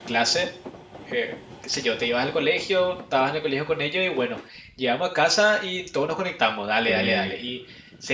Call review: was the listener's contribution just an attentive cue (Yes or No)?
Yes